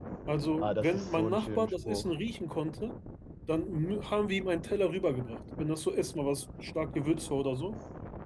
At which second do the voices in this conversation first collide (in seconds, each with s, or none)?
0.6 s